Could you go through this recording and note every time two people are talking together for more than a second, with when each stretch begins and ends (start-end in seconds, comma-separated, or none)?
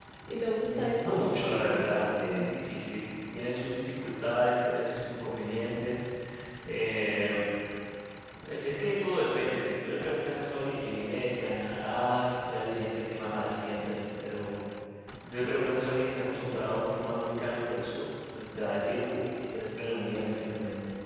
0.7-2.4